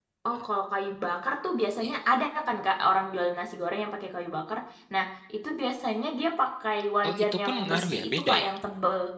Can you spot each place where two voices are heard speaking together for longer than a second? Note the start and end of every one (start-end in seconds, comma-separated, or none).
7.1-8.5